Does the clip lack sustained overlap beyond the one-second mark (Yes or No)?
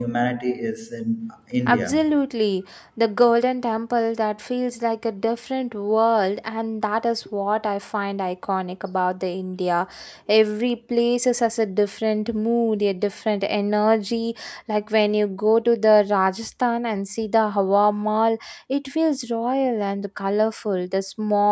Yes